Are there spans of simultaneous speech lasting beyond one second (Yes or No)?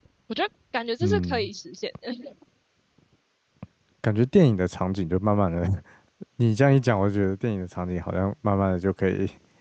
No